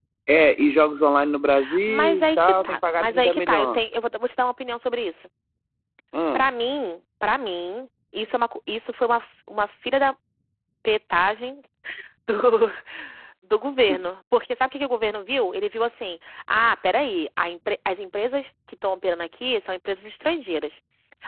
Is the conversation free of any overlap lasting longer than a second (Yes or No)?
No